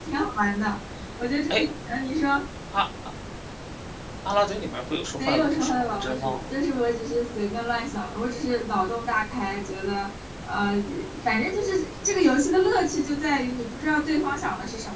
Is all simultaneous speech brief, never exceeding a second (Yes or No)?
No